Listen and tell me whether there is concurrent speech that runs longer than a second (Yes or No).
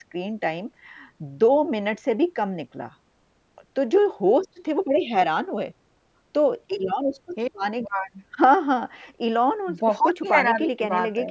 Yes